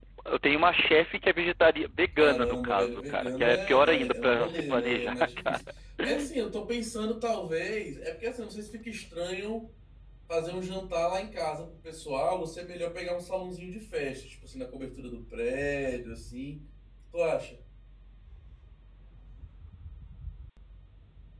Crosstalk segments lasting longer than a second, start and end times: 2.2-5.6

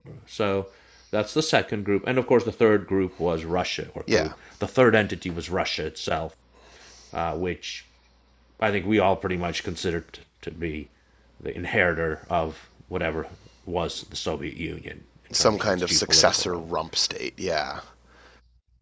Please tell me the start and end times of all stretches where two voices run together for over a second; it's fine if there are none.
15.3-16.7

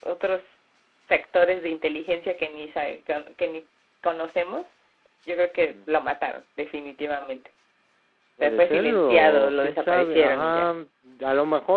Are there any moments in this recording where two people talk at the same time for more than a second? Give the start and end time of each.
8.4-10.7

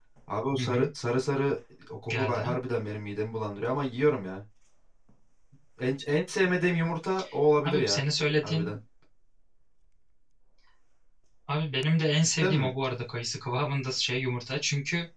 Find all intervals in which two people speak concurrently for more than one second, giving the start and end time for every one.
none

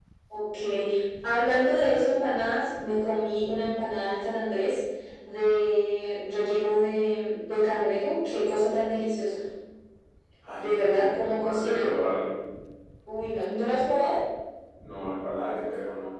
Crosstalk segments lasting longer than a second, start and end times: 10.6-11.8

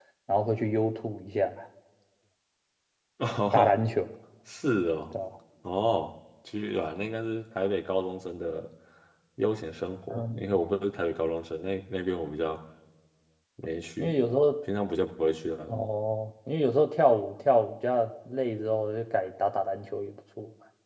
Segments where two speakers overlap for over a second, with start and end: none

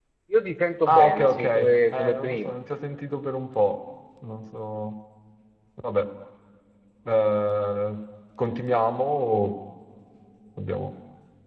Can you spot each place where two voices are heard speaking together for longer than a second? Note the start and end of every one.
0.9-2.6

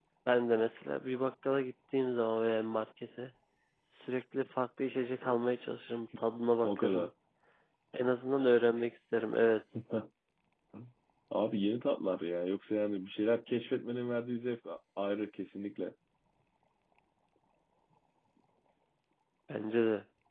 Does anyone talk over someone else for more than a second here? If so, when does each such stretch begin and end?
none

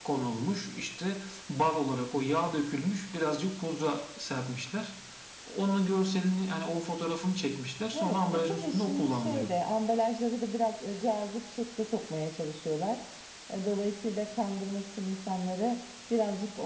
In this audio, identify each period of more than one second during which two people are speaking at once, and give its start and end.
7.9-9.5

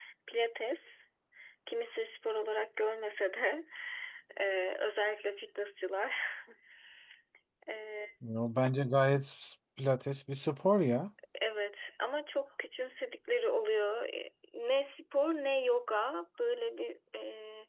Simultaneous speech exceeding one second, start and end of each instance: none

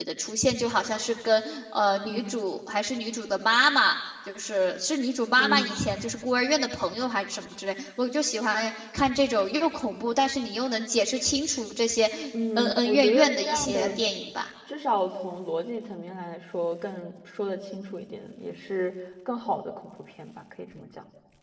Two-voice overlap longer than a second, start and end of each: 12.6-13.9

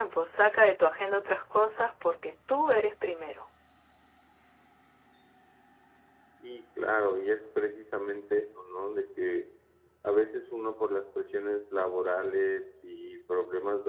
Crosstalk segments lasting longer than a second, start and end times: none

